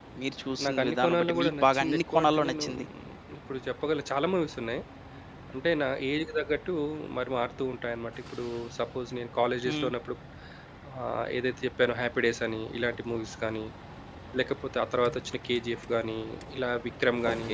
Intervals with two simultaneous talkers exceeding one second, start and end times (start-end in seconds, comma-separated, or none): 0.6-2.8